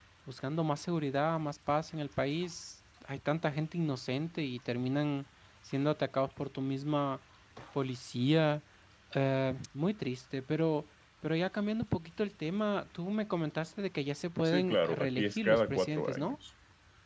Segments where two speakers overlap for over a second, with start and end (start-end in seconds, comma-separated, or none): 14.4-16.4